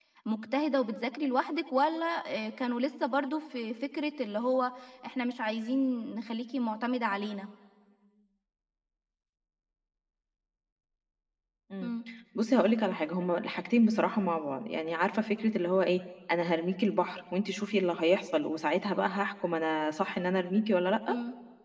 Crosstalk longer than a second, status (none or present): none